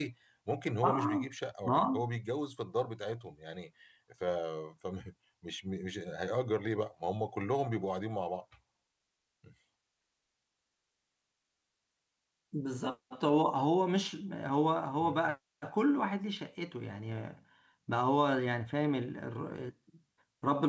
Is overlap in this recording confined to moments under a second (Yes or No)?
Yes